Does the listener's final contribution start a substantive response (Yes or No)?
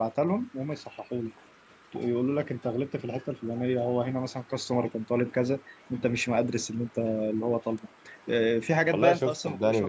Yes